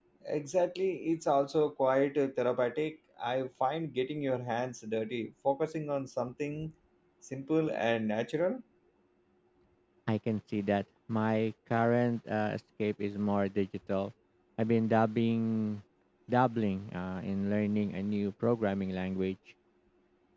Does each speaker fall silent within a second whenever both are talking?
Yes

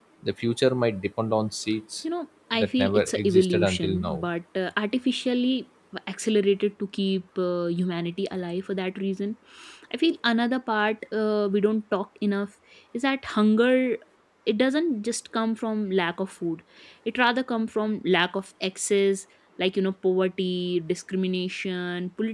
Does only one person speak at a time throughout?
No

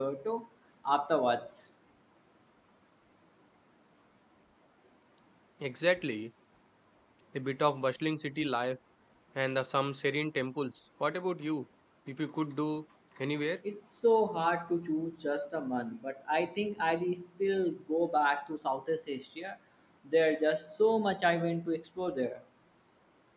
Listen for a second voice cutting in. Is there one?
No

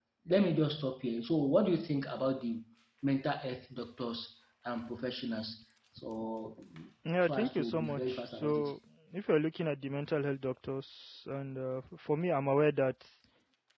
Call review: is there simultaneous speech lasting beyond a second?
Yes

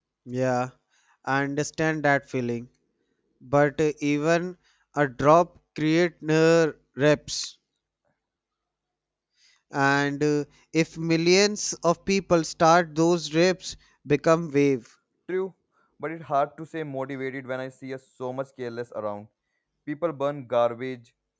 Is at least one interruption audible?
No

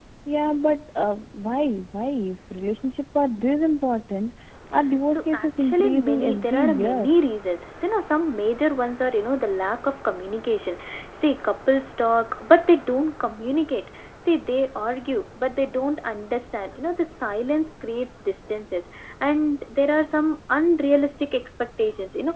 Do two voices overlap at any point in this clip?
Yes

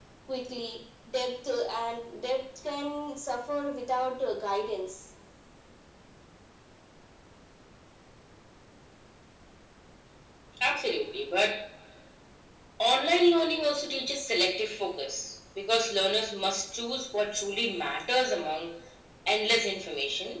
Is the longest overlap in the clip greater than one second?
No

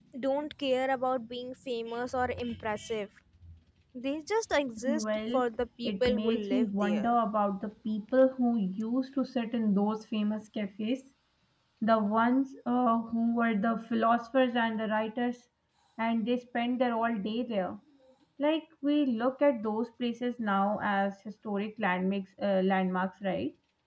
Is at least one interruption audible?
Yes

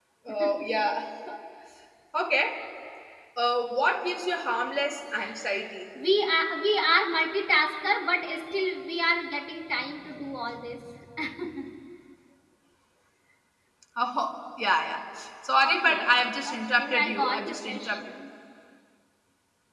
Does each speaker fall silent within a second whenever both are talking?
No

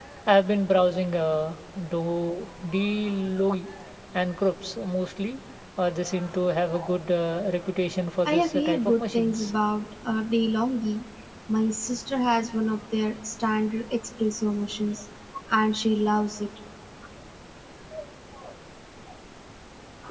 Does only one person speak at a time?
No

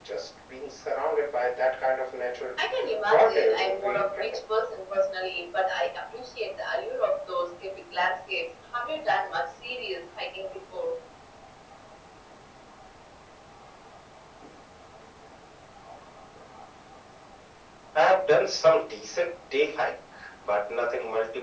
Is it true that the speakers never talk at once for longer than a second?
No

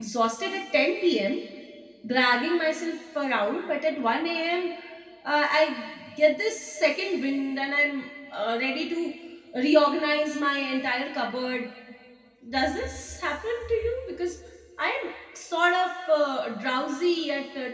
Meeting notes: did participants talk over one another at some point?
No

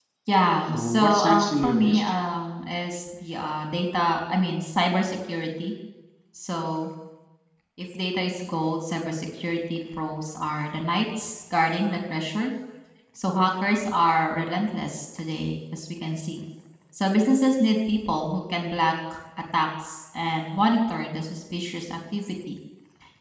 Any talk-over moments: Yes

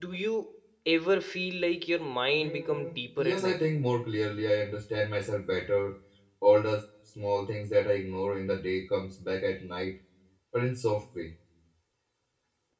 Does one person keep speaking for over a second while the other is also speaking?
Yes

